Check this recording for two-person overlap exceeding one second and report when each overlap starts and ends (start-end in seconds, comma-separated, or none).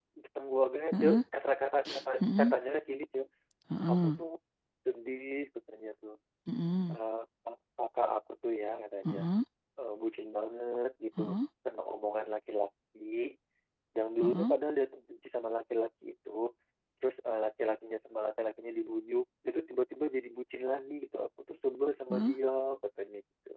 none